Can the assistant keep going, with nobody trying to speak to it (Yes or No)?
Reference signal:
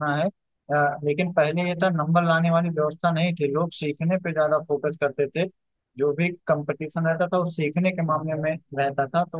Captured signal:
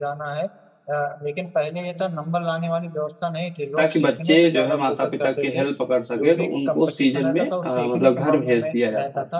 No